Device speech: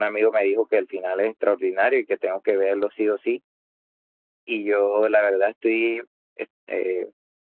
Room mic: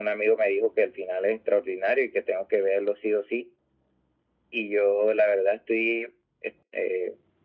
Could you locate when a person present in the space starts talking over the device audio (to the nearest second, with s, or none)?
none